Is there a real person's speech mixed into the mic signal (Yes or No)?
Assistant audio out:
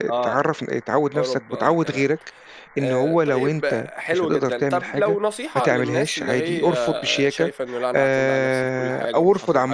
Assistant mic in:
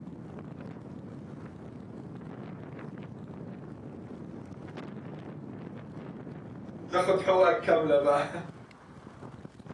Yes